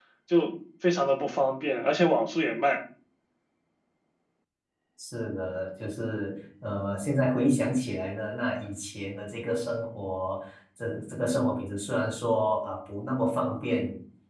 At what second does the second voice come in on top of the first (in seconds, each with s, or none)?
none